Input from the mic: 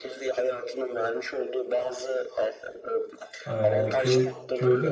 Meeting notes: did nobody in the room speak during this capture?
No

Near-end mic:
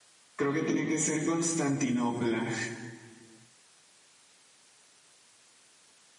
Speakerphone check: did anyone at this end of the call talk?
Yes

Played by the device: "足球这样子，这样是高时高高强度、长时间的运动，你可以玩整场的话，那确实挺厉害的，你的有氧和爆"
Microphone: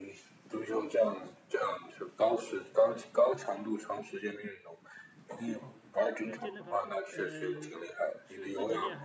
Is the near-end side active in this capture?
Yes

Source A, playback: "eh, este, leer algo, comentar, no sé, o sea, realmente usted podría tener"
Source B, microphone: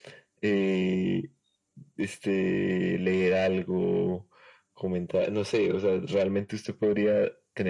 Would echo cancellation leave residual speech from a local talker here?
No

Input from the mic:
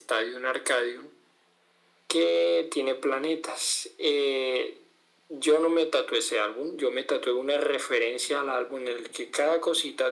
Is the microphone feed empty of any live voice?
Yes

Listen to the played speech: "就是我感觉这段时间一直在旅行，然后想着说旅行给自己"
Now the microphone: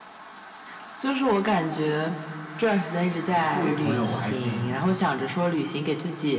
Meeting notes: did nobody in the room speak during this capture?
No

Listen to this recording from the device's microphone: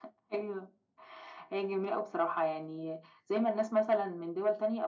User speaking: No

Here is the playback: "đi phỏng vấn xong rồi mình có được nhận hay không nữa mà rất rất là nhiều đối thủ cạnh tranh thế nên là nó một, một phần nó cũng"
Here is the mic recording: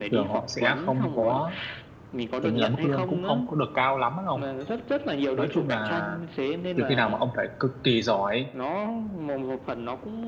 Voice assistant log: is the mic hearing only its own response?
No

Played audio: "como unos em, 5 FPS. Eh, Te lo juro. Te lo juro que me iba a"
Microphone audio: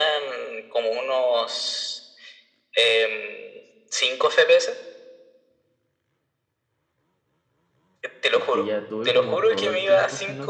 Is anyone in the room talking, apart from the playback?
Yes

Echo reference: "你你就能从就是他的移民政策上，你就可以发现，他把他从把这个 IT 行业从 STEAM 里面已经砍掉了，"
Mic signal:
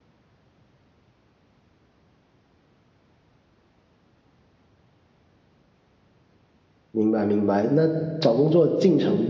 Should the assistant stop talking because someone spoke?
Yes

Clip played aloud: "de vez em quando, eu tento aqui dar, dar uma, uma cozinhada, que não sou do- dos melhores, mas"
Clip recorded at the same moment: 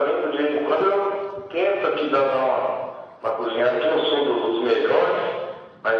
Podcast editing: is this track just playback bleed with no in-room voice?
Yes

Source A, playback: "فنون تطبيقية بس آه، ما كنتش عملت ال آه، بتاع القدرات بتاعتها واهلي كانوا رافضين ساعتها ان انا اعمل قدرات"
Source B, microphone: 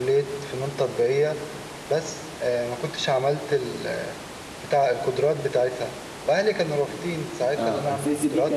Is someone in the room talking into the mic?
Yes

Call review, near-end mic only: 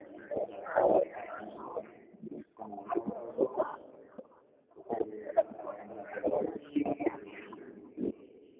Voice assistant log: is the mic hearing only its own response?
Yes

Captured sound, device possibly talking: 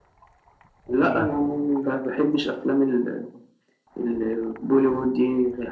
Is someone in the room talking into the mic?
Yes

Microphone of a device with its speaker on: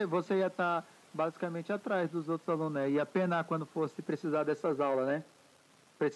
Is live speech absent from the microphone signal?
Yes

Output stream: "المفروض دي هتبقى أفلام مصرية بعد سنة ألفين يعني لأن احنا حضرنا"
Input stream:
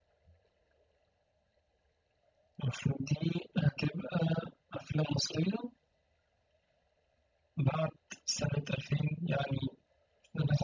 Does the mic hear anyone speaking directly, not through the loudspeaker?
No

